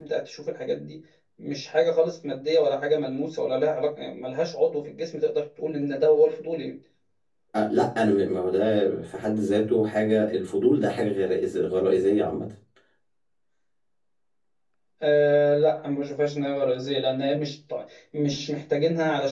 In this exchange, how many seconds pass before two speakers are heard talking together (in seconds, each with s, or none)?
none